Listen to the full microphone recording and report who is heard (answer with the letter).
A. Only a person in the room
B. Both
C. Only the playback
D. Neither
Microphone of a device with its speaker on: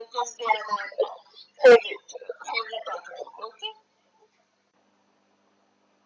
C